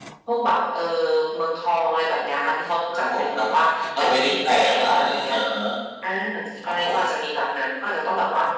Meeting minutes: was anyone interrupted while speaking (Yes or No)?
Yes